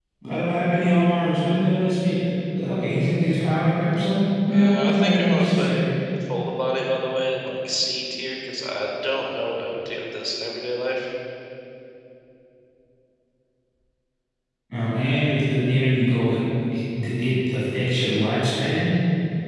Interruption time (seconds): 4.5 s

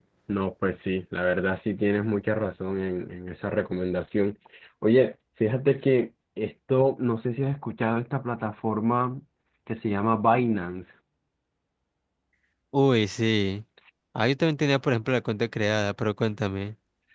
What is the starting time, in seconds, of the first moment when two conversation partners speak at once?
none

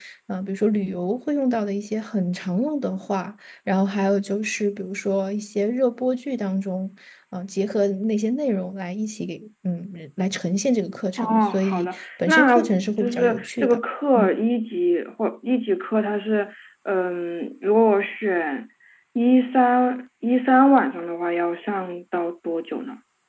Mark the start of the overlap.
11.2 s

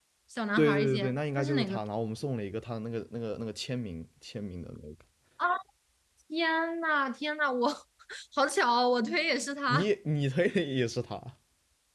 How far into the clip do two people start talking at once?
0.6 s

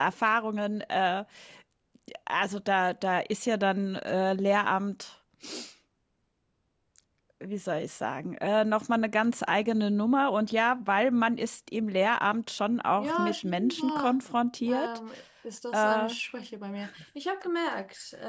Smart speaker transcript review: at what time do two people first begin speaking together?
13.0 s

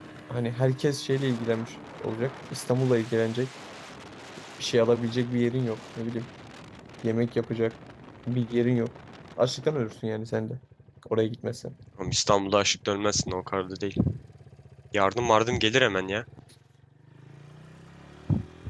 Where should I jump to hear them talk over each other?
none

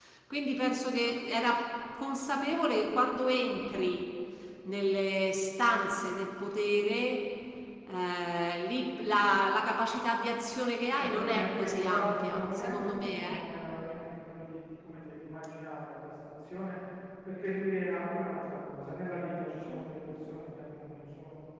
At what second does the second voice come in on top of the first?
11.0 s

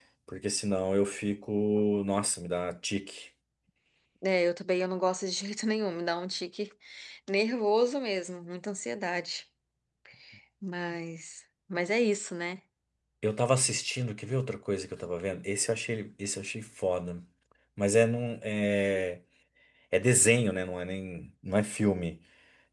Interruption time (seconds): none

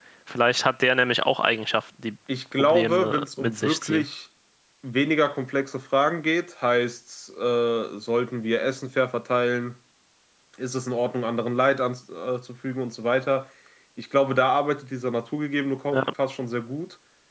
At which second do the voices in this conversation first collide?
2.6 s

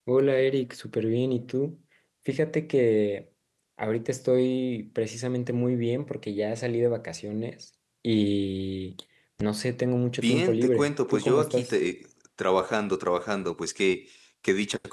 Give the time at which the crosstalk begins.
10.2 s

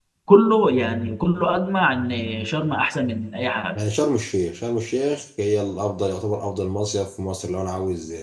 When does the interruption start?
none

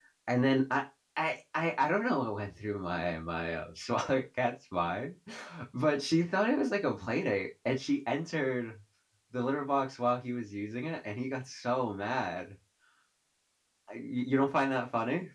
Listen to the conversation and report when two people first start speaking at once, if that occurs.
none

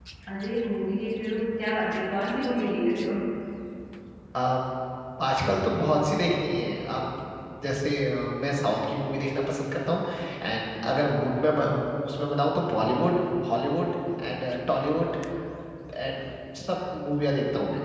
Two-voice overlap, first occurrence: none

